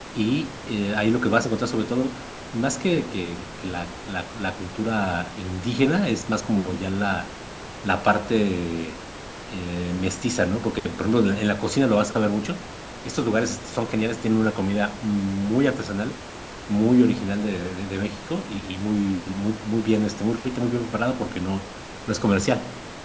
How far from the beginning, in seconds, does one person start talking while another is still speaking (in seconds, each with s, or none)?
none